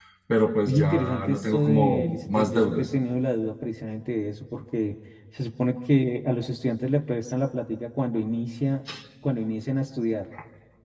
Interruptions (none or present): present